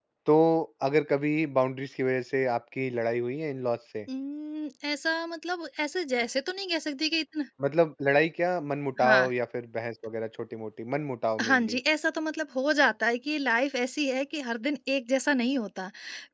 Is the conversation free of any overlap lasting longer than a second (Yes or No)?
Yes